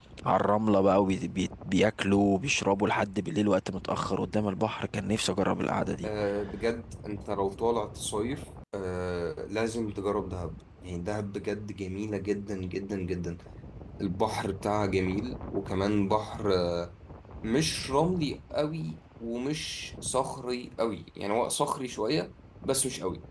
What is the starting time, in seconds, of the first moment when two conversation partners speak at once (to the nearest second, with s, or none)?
none